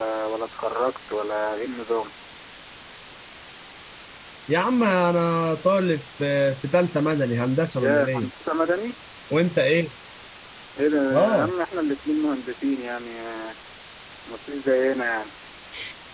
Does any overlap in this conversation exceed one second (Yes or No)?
No